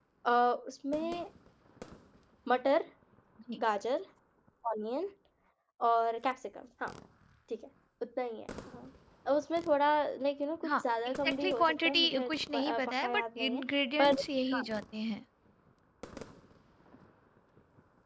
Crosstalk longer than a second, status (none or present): present